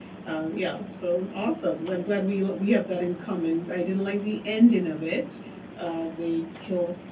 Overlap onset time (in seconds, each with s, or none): none